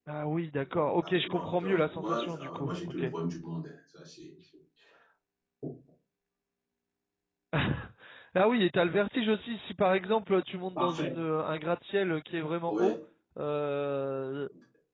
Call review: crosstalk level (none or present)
present